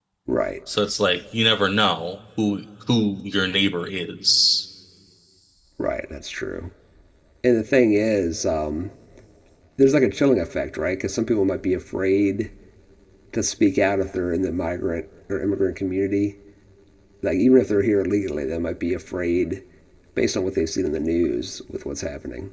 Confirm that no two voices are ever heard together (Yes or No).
Yes